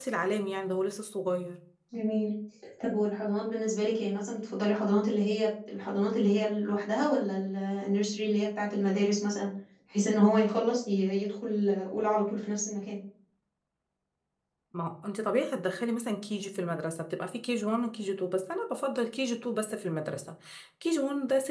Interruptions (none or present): none